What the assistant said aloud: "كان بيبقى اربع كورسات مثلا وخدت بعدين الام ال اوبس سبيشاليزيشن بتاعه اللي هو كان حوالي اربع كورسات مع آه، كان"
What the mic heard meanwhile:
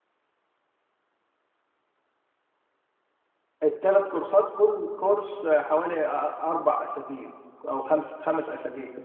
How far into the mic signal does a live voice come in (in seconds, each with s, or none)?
3.6 s